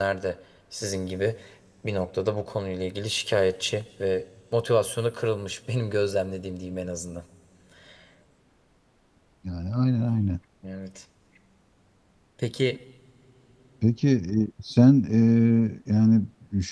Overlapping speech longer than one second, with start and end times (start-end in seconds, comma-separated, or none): none